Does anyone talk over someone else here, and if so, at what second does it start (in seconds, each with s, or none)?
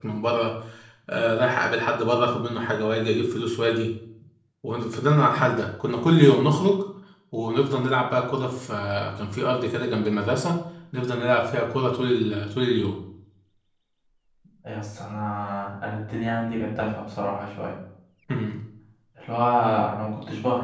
none